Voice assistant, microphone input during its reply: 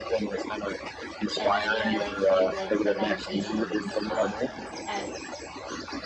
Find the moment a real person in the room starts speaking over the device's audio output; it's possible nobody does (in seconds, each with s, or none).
1.4 s